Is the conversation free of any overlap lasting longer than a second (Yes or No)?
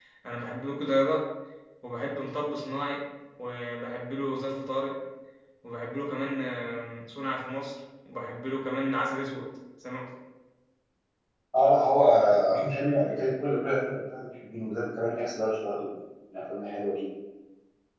Yes